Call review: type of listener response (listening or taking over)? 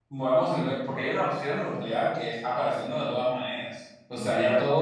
taking over